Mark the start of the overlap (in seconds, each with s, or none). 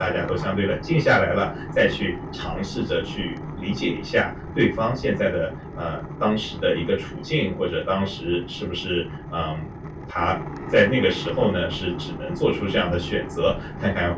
none